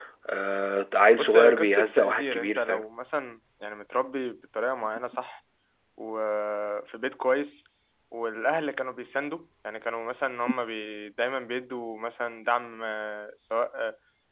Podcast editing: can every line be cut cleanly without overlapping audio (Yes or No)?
No